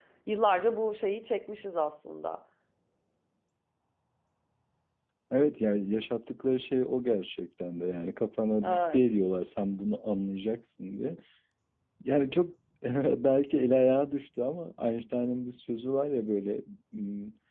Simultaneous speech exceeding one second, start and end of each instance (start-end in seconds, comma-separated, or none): none